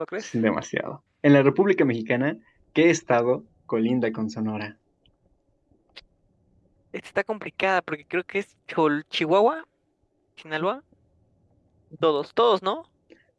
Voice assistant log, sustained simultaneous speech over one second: none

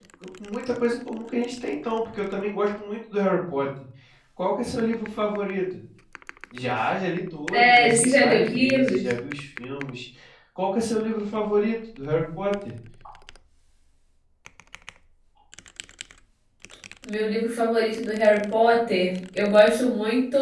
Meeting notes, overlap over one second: present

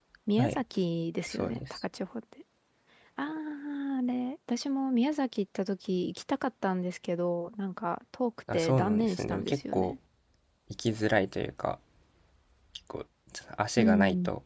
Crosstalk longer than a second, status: present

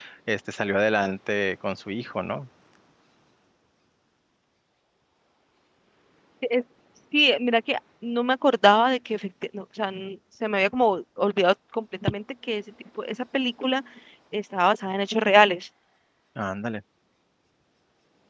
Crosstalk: none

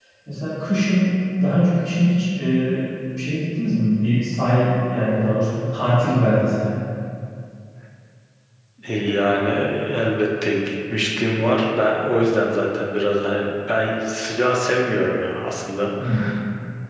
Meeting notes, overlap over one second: none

